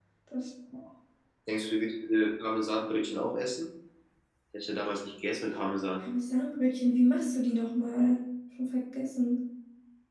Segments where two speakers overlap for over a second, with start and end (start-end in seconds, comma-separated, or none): none